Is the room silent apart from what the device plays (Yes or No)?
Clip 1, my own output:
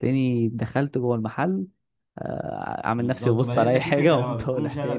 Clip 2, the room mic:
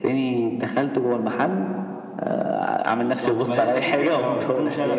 Yes